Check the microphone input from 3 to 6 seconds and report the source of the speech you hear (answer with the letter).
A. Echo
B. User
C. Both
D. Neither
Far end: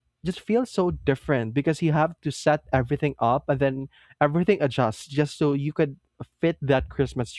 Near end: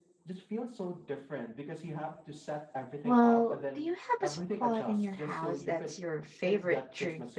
C